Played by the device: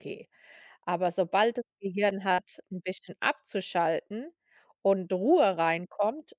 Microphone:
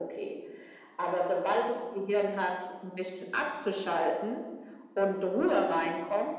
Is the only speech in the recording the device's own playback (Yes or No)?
Yes